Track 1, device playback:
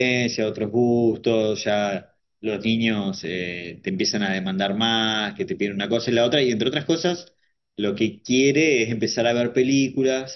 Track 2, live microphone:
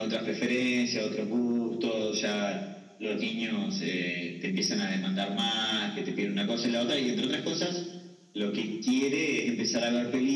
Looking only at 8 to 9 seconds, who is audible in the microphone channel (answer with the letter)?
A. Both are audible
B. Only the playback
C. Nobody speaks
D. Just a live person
B